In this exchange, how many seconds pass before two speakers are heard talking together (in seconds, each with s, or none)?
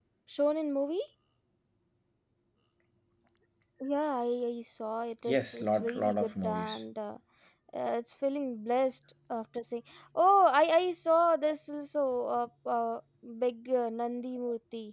5.3 s